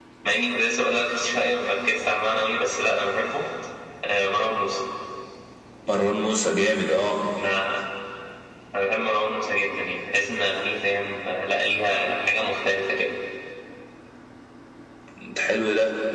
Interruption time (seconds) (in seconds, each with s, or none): none